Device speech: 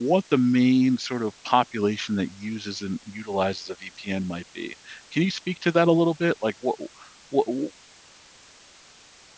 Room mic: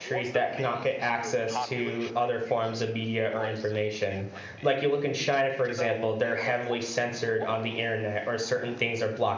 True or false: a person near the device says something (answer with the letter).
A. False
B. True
B